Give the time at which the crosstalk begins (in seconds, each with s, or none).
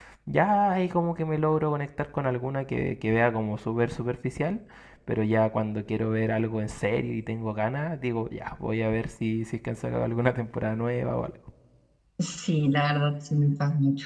none